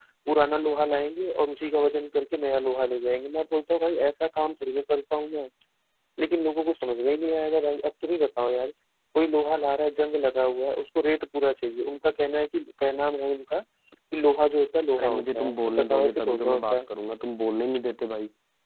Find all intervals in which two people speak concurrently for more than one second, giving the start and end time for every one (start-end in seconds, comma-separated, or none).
15.0-16.8